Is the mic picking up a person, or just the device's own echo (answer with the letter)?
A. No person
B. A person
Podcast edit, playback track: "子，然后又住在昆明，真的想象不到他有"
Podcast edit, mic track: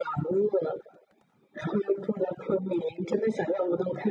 A